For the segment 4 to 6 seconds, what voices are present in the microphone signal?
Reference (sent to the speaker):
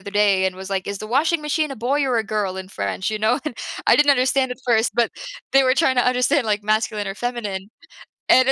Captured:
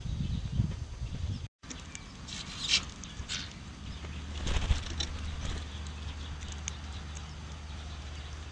neither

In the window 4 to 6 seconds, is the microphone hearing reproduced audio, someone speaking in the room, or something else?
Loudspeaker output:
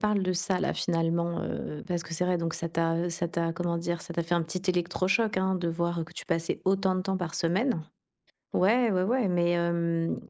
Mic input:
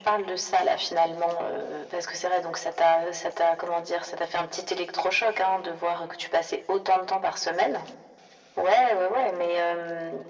echo only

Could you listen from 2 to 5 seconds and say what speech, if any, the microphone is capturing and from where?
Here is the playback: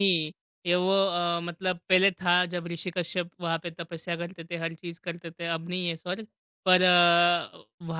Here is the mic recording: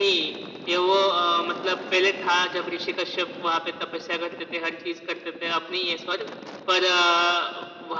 echo only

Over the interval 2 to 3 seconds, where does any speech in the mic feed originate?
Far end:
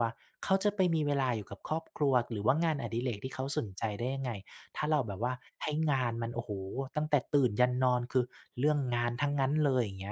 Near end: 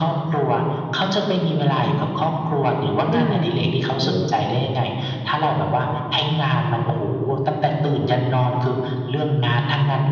echo only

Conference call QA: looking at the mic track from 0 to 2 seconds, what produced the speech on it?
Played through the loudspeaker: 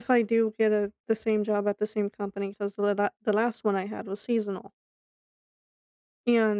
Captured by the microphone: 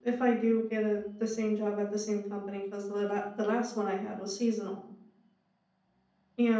echo only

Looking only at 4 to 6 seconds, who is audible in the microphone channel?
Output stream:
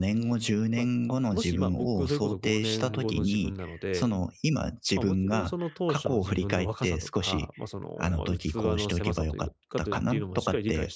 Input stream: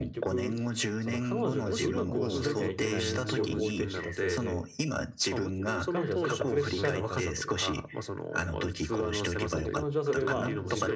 both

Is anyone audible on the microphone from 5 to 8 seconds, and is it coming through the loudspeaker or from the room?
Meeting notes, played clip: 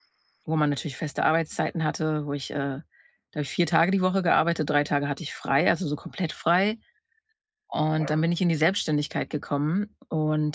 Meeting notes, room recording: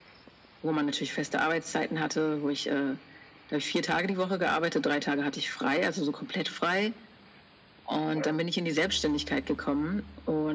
echo only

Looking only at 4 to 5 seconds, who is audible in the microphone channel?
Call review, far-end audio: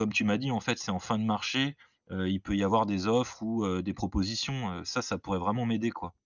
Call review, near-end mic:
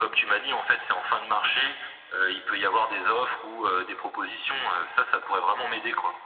echo only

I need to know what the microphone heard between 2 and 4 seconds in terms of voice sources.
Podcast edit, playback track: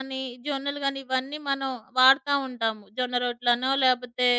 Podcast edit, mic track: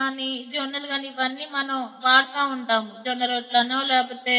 echo only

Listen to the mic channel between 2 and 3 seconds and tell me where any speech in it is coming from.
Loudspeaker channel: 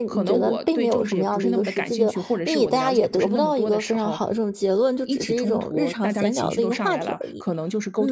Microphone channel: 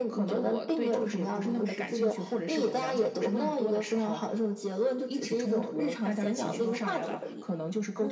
echo only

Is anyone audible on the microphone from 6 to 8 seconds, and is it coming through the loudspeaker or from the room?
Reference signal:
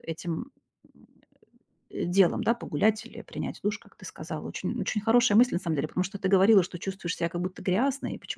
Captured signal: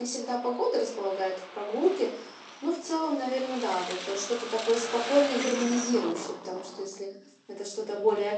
user only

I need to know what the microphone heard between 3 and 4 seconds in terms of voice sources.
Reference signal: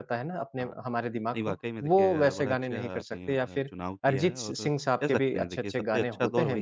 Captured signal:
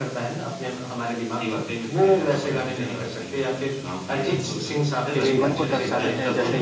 echo only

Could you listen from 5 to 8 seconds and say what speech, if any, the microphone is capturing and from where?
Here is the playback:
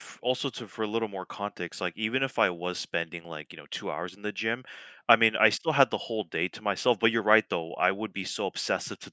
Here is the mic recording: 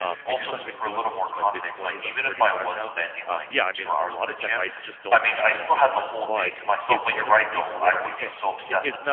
both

